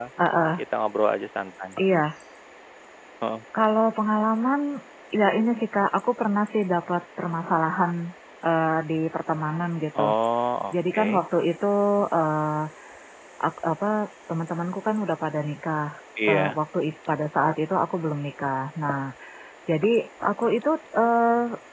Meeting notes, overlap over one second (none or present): none